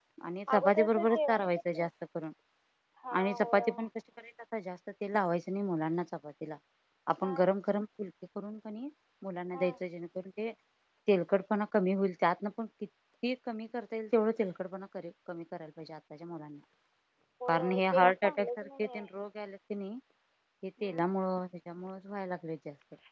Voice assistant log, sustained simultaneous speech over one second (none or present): present